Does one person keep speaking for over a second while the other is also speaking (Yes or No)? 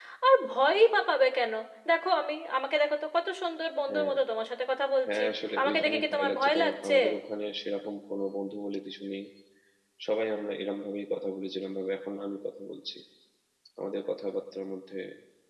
Yes